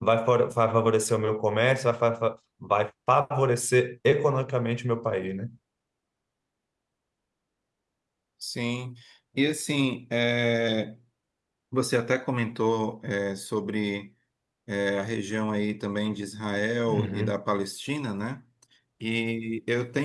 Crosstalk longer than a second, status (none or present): none